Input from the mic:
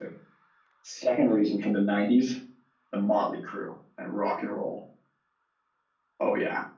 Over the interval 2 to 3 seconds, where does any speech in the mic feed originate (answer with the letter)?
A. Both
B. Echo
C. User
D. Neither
C